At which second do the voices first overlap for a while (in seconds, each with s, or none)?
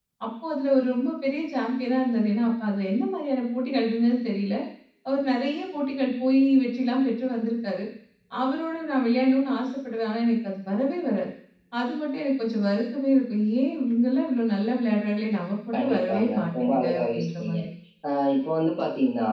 15.7 s